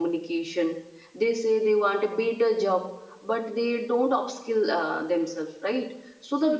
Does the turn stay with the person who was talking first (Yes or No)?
Yes